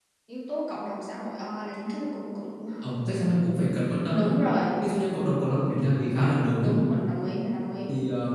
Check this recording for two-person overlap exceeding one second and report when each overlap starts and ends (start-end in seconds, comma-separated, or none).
none